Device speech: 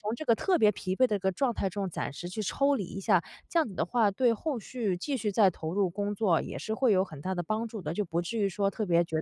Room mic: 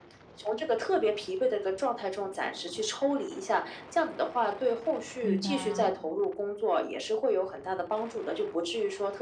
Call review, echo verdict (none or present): present